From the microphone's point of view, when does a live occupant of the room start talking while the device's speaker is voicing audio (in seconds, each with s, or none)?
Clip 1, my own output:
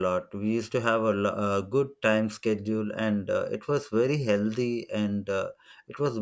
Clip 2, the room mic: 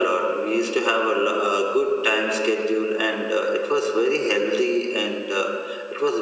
none